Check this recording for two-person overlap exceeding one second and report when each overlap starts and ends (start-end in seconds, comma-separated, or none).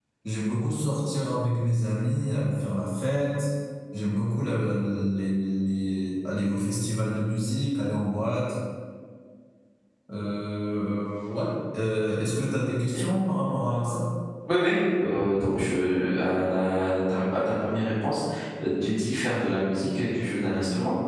none